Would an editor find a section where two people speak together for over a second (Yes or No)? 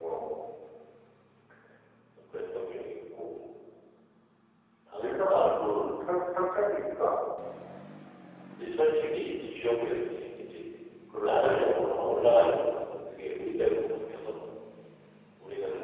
Yes